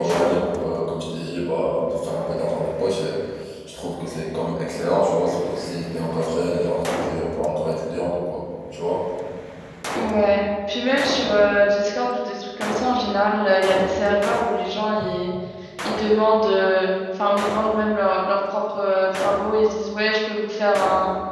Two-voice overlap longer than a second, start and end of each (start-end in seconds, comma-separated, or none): none